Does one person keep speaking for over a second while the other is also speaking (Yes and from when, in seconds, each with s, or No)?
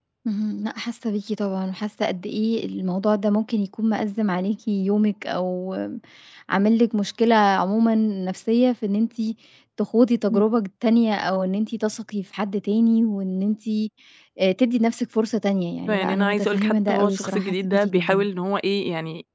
Yes, from 15.9 s